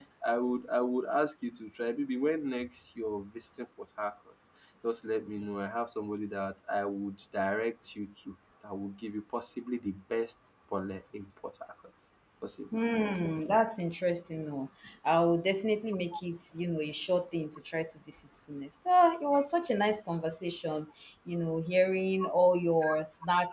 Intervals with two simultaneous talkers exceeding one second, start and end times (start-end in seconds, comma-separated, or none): none